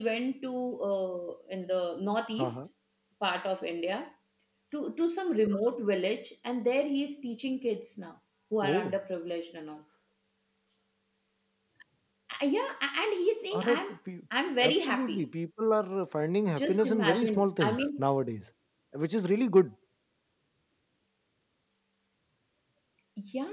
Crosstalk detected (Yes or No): Yes